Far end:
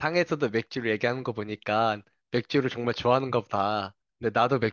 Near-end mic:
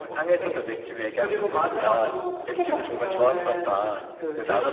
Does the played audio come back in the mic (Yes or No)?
Yes